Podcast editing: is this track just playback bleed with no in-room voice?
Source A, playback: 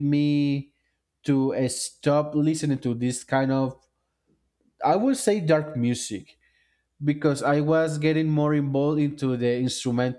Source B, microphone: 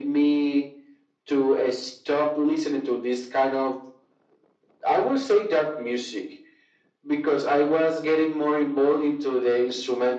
Yes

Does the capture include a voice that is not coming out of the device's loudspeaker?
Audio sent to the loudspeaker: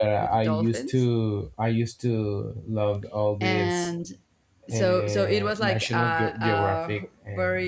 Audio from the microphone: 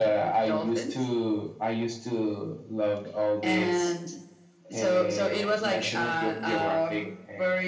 No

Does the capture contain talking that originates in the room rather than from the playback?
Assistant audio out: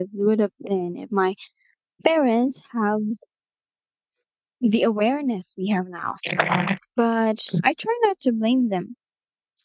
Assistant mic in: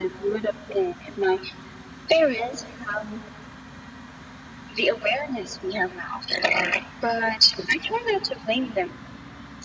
No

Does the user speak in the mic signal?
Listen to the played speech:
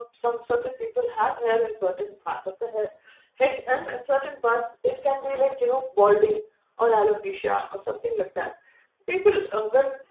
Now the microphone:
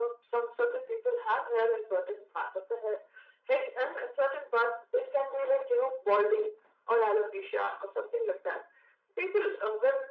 No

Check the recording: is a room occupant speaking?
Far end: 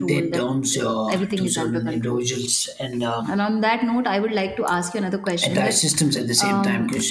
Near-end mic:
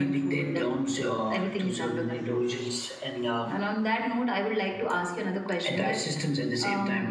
No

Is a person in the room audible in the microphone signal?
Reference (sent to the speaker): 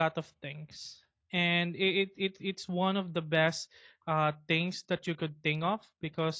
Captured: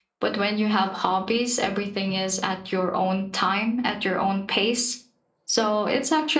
Yes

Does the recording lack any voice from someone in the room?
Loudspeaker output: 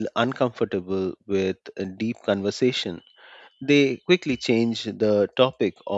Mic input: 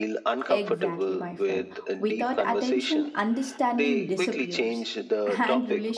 No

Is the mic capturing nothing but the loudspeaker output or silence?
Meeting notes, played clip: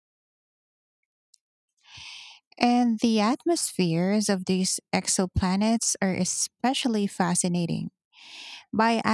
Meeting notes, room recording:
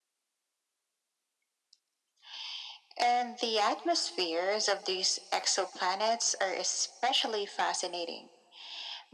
Yes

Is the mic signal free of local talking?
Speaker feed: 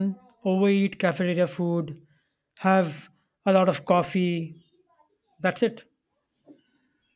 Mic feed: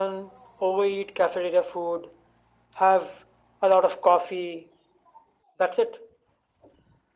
Yes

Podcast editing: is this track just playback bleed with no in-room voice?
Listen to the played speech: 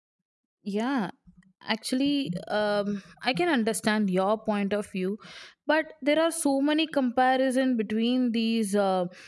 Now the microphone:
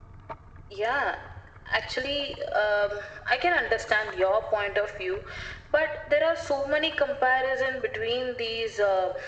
Yes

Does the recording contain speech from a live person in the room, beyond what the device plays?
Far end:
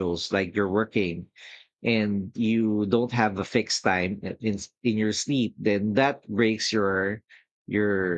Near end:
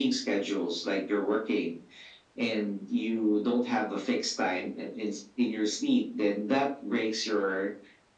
No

